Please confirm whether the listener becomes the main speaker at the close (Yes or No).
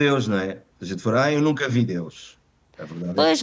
Yes